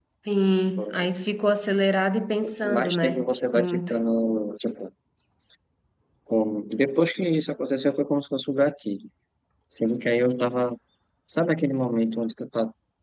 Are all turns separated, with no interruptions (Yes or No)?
No